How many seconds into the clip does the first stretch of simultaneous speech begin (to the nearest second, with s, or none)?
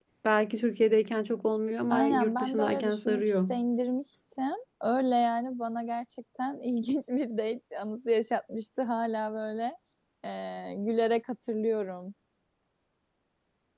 2 s